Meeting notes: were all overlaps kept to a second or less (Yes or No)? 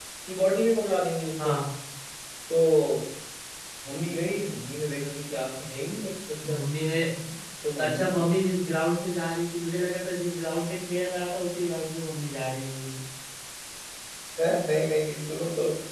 Yes